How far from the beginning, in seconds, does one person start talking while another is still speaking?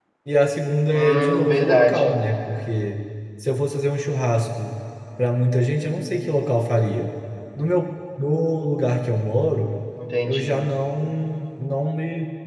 1 s

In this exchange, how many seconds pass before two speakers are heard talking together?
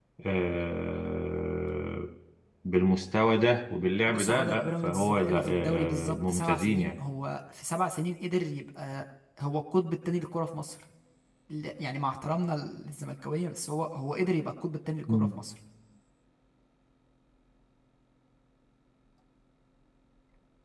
4 s

